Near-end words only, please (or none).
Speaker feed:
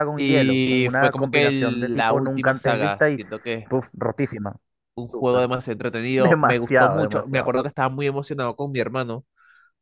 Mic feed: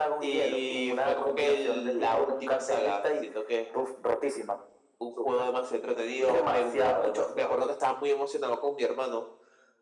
none